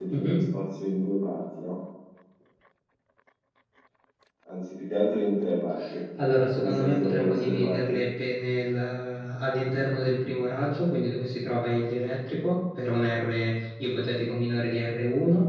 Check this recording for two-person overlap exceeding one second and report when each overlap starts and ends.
6.5-7.8

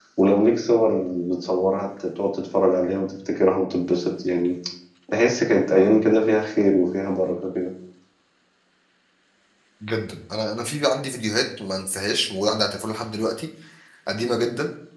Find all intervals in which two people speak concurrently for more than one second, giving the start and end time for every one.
none

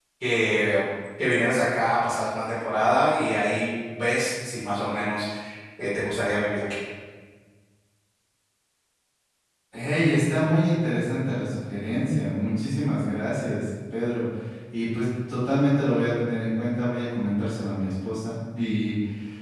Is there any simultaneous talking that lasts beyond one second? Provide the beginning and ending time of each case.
none

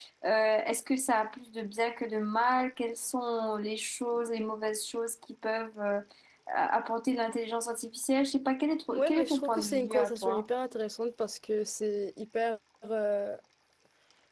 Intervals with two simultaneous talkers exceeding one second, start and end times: 8.9-10.4

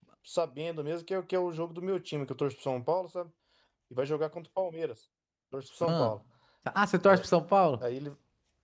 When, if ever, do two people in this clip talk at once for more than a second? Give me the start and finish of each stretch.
none

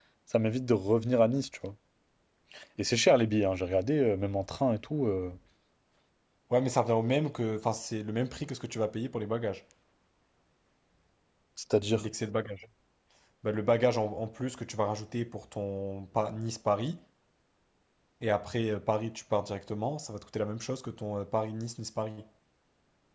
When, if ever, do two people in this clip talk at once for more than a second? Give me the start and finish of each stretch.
none

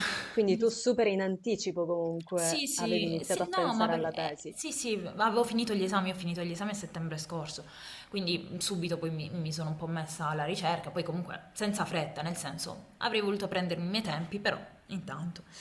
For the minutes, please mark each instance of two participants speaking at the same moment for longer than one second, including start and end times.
2.4-4.4

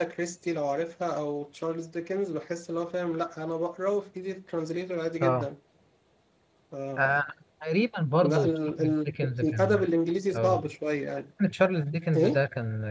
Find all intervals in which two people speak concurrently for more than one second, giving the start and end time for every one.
8.2-9.8

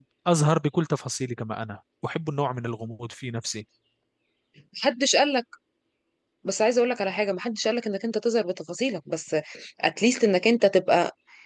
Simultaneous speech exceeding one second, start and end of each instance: none

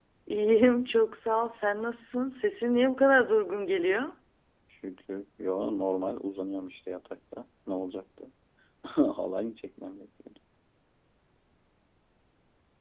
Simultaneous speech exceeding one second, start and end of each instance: none

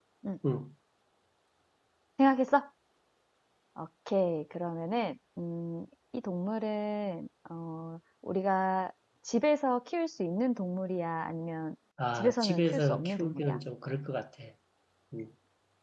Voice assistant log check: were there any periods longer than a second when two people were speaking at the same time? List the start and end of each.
12.2-13.6

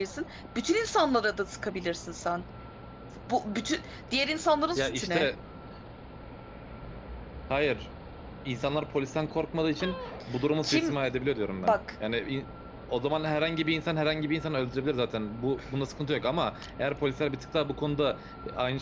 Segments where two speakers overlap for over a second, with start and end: none

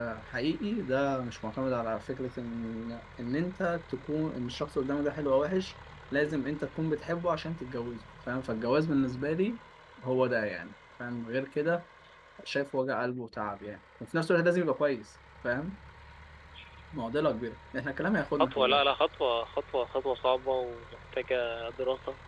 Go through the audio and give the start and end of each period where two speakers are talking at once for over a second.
none

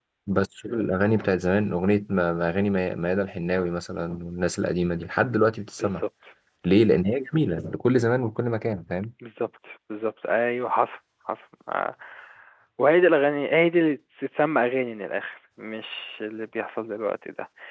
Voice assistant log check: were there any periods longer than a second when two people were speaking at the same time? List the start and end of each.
none

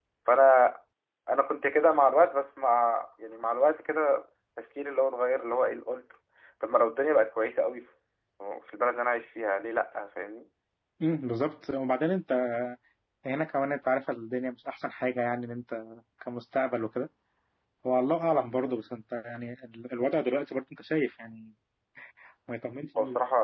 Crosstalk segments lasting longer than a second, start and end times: none

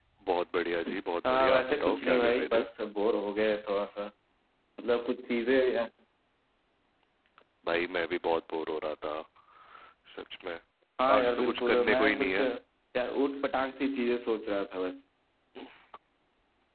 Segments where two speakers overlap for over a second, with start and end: 1.3-2.6, 11.2-12.4

